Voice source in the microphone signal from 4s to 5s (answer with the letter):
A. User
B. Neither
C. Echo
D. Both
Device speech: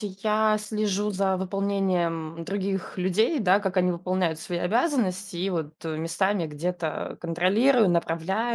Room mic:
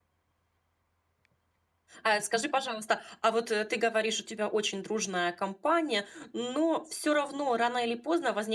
A